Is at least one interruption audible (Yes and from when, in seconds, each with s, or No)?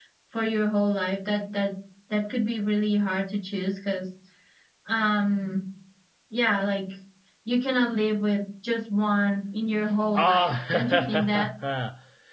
Yes, from 10.1 s